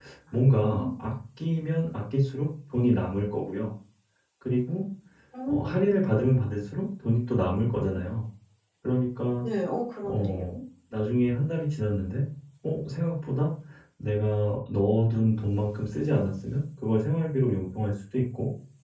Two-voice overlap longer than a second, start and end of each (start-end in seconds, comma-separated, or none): none